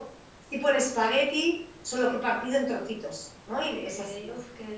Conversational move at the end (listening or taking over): taking over